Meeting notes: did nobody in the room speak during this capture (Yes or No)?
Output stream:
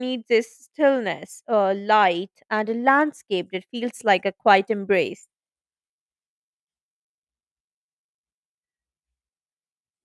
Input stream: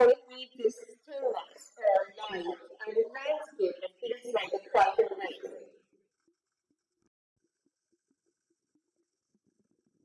Yes